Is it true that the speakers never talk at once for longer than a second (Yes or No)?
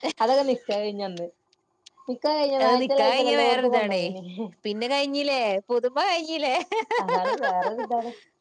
No